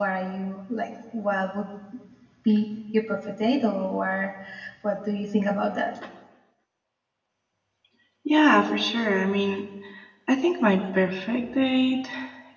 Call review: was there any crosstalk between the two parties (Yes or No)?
No